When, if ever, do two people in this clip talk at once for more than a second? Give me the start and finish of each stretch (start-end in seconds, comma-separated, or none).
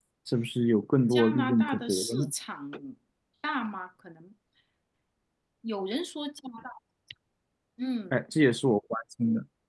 1.1-2.3